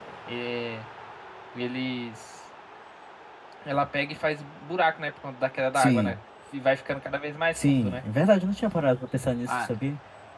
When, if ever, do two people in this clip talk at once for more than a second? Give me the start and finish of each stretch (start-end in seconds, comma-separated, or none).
none